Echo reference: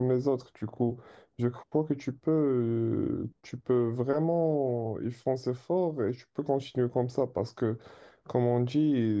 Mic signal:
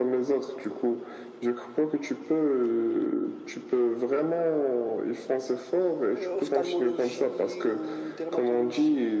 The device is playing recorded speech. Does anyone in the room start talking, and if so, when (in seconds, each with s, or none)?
6.1 s